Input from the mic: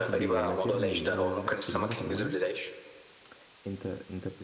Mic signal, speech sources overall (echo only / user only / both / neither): both